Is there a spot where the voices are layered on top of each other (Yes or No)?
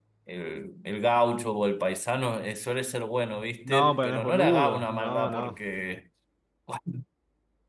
Yes